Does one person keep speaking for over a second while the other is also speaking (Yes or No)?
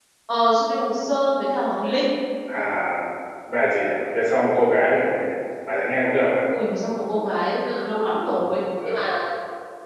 No